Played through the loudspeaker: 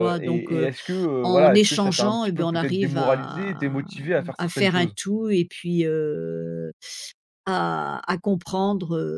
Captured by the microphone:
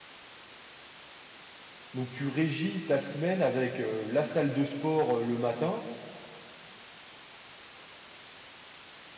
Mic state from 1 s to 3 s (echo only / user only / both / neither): user only